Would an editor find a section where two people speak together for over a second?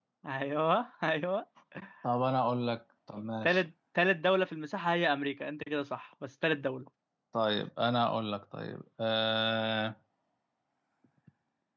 No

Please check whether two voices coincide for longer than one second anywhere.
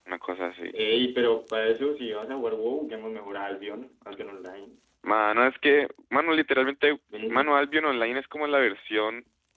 No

